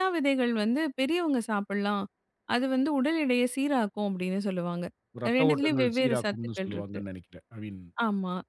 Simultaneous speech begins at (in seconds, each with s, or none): 5.4 s